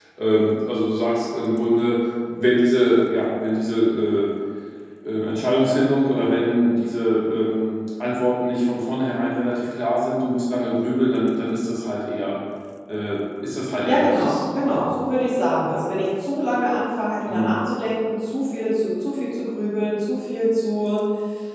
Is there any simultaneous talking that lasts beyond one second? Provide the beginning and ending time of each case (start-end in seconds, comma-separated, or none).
13.8-15.1